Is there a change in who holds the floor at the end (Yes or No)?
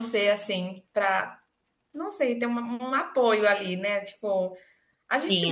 No